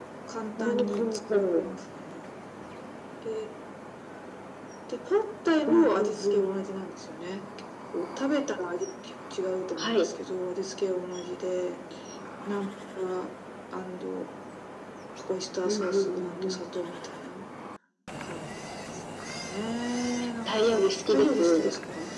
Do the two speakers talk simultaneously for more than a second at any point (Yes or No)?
Yes